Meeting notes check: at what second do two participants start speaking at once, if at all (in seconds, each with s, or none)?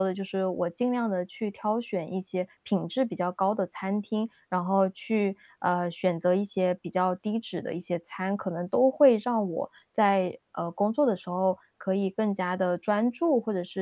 none